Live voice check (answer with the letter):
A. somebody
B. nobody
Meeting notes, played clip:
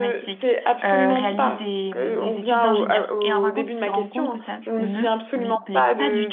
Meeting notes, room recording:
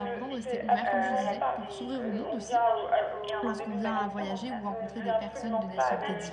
A